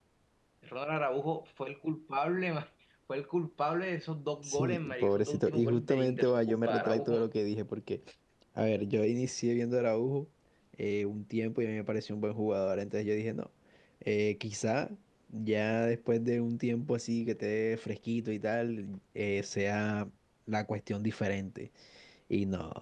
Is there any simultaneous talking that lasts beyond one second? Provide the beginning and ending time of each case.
4.4-7.3

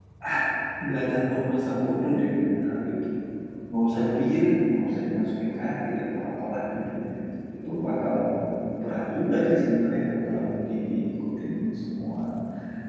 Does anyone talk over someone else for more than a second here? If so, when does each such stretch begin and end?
none

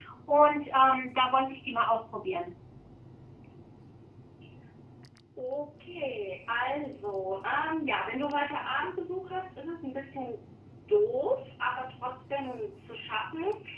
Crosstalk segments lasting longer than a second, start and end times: none

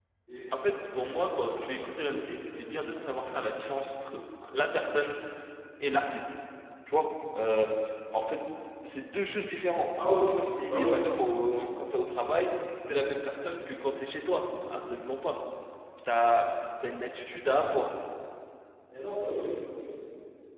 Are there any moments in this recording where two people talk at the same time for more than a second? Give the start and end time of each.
0.5-3.0

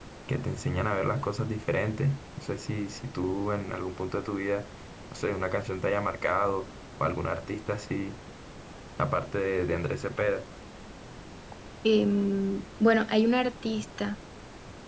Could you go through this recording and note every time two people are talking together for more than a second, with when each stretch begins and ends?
none

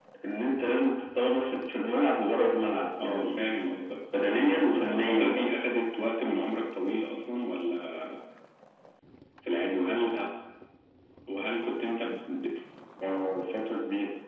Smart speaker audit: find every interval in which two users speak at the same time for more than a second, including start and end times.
4.3-5.6

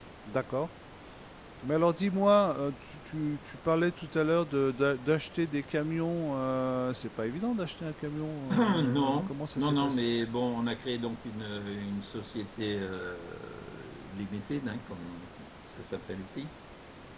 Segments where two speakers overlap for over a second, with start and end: 8.5-10.1

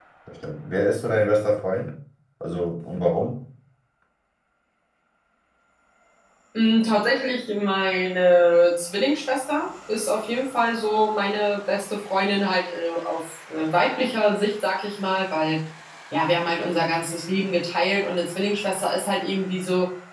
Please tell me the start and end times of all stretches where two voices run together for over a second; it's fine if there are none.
none

